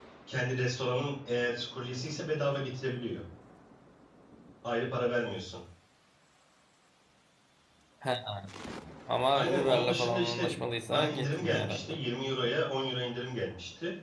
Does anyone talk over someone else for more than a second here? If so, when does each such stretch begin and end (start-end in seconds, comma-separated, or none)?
9.3-11.8